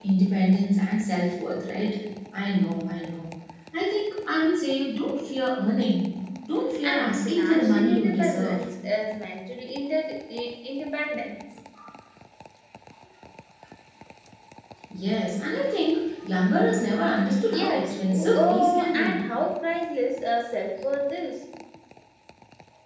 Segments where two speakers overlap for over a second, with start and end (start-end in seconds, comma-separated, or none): 6.8-8.7, 17.5-19.2